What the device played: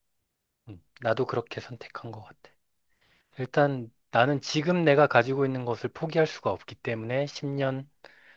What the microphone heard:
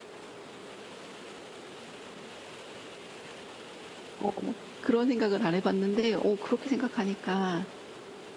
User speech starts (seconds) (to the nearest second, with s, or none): 4 s